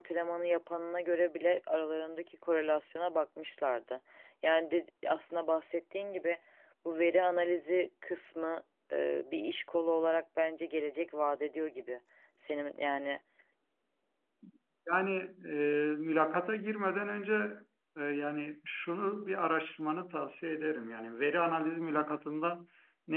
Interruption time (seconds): none

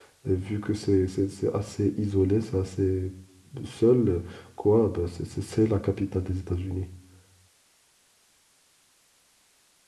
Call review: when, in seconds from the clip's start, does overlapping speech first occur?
none

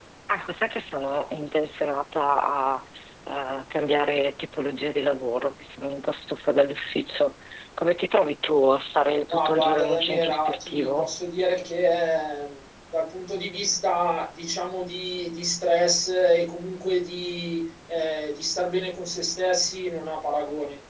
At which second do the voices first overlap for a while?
9.3 s

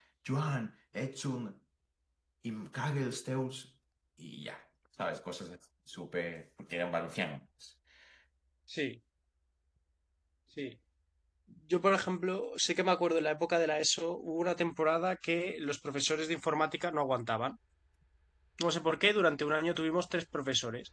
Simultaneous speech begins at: none

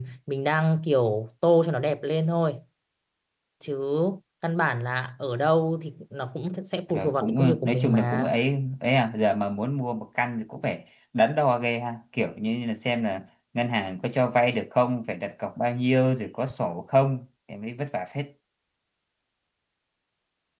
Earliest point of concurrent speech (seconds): 6.9 s

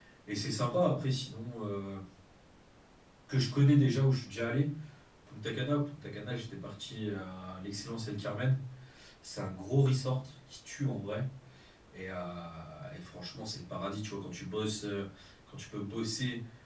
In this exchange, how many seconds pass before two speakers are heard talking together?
none

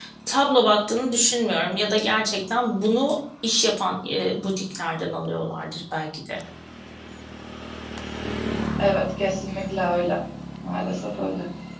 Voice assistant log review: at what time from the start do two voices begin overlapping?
none

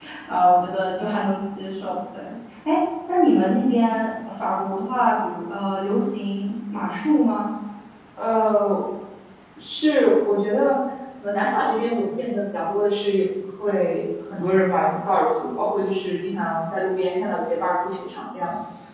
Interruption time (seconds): none

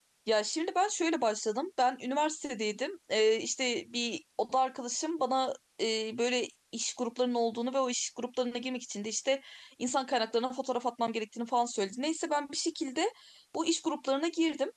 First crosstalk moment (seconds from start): none

